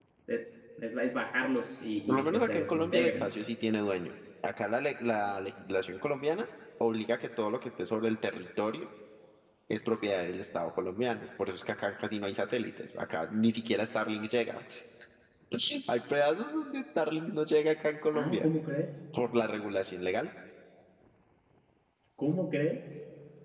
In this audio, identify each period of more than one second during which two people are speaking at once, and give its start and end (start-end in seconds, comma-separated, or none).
2.1-3.3